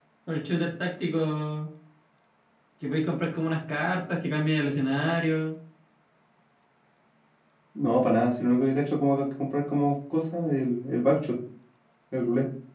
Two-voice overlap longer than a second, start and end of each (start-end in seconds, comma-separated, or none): none